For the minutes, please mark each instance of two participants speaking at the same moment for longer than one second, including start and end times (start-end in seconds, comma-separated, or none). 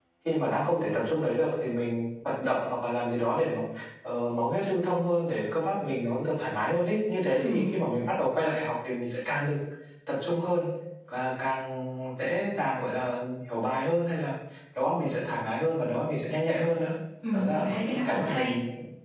17.3-18.6